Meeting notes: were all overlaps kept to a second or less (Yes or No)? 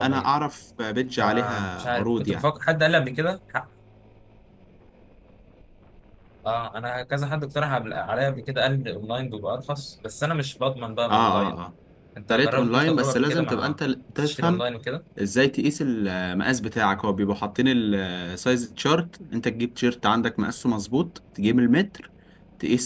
No